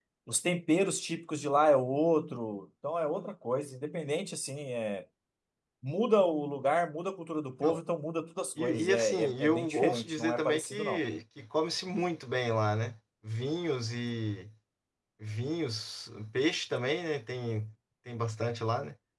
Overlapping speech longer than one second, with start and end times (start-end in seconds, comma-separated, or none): 8.6-11.0